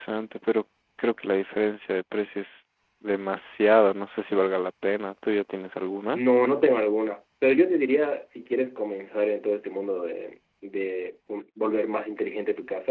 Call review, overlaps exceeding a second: none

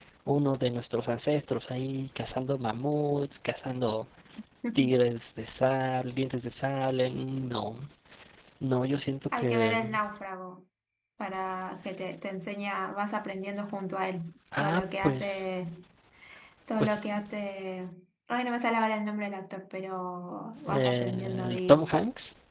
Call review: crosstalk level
present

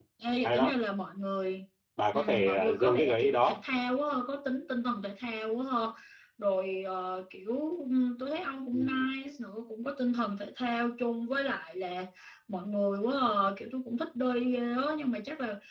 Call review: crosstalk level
present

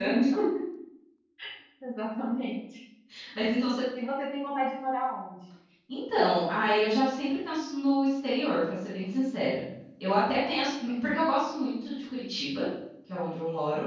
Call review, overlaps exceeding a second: none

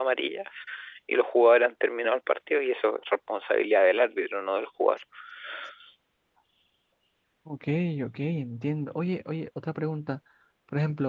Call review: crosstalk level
none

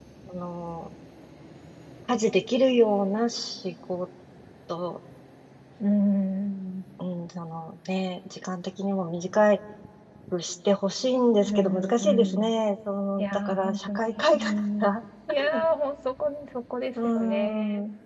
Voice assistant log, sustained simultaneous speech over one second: present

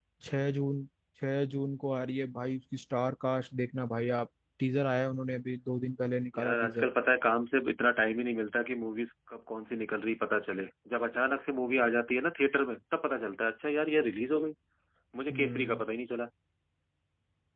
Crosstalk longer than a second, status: none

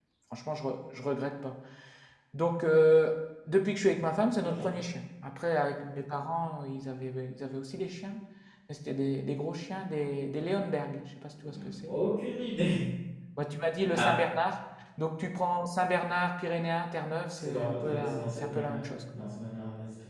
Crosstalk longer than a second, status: present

